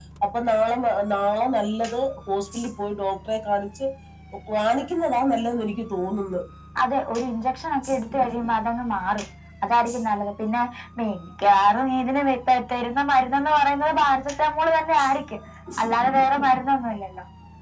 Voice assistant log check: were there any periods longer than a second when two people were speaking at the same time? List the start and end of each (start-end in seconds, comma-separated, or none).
none